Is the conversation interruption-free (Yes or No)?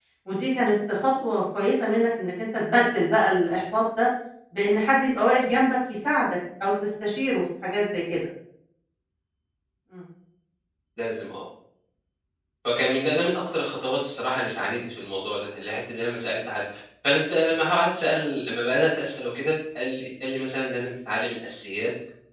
Yes